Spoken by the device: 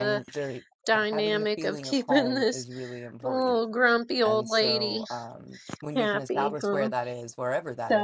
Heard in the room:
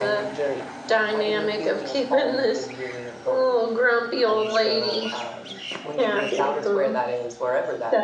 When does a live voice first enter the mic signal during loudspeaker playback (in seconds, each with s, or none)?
none